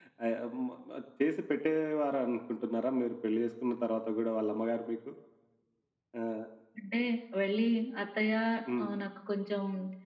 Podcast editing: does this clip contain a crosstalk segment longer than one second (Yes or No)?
No